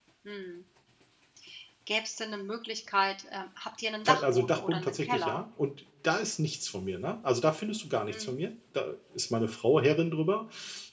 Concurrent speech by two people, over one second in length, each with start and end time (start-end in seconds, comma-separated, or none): 4.0-5.4